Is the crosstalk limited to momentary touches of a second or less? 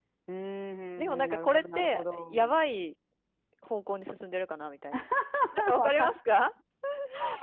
No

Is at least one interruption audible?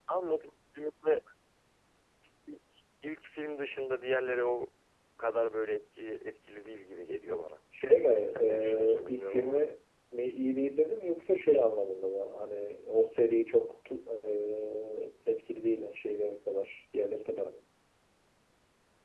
Yes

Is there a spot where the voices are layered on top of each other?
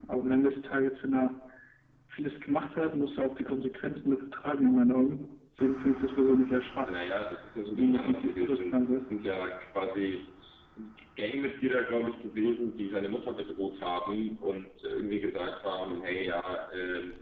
Yes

